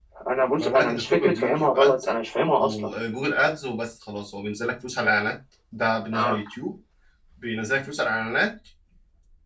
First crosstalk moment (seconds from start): 0.6 s

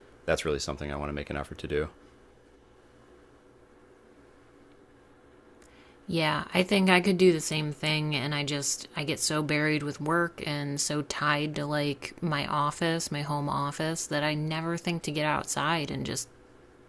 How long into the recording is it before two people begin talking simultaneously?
none

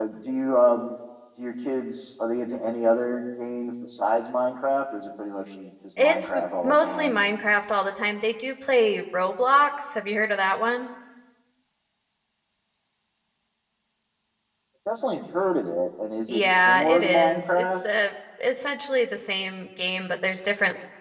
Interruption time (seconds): 6.0 s

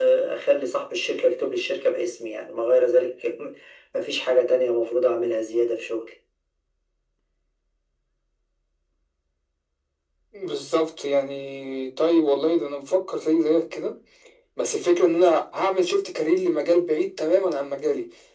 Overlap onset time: none

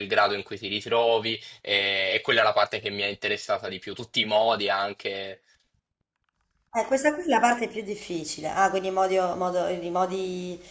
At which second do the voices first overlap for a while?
none

